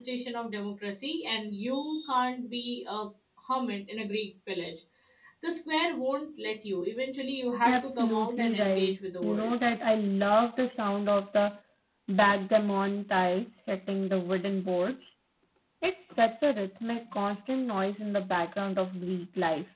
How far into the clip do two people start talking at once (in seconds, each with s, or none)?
7.6 s